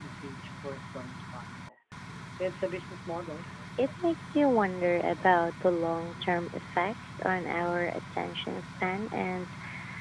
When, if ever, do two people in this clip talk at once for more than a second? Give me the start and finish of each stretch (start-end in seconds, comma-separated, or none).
none